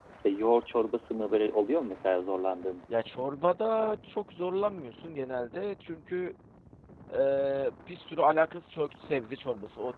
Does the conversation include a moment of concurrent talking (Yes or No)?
No